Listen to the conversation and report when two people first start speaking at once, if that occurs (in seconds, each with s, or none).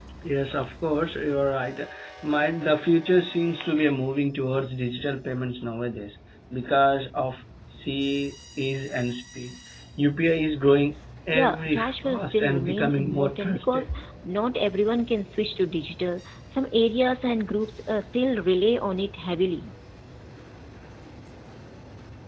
11.3 s